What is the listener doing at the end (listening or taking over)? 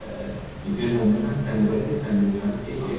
listening